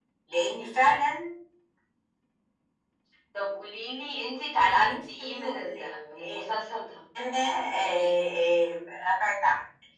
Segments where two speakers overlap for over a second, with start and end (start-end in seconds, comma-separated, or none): 4.6-5.9